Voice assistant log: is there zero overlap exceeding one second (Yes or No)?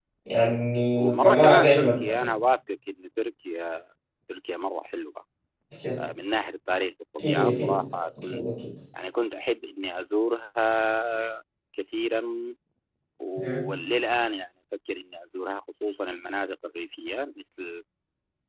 No